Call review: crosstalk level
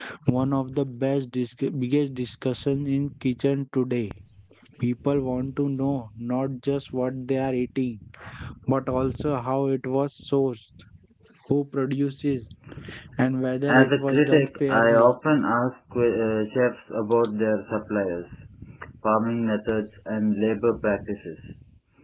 present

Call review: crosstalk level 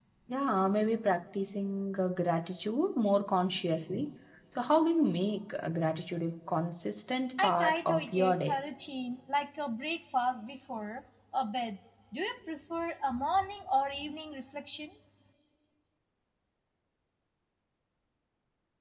present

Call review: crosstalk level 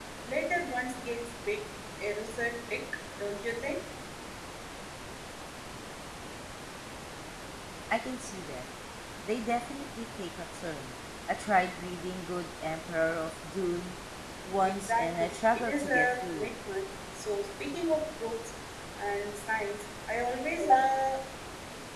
present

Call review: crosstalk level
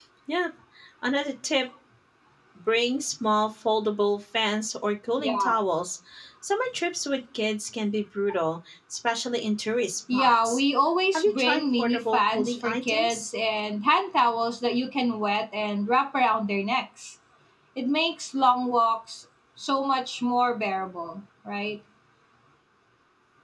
present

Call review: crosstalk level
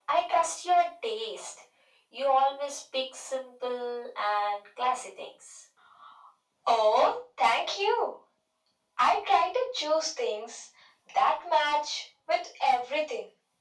none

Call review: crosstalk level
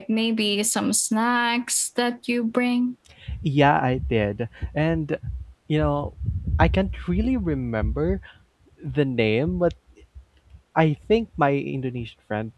none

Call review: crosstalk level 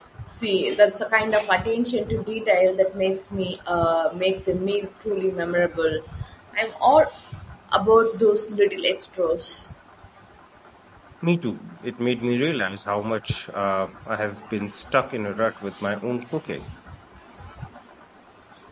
none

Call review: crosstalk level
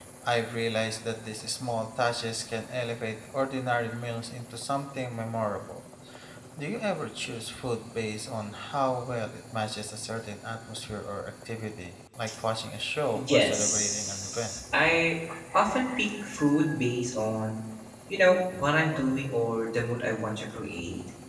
present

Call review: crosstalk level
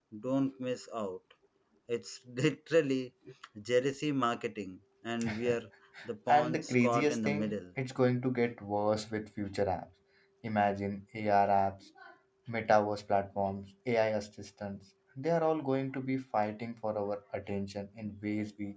present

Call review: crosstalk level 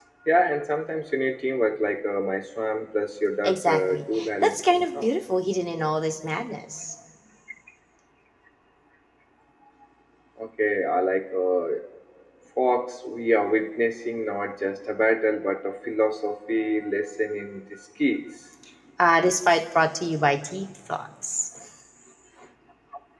present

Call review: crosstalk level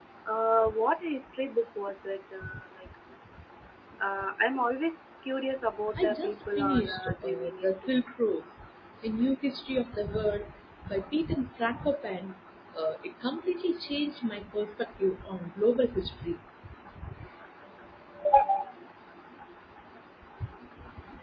present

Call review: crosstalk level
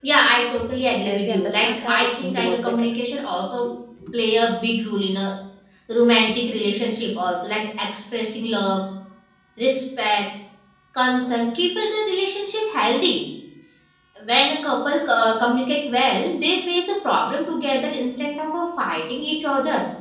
present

